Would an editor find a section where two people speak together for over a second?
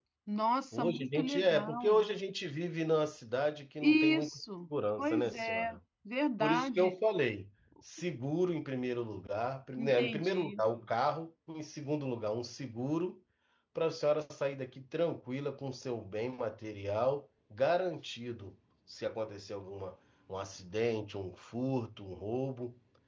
Yes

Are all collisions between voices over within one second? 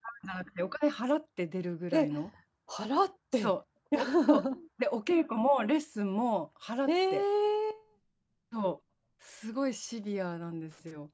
Yes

